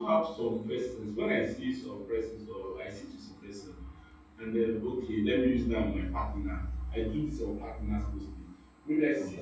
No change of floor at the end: Yes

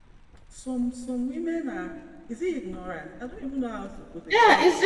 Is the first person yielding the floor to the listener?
Yes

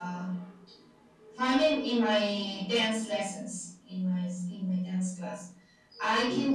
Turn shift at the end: No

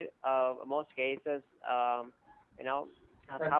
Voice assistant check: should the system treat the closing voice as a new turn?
No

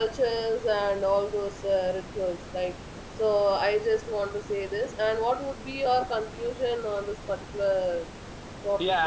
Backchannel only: No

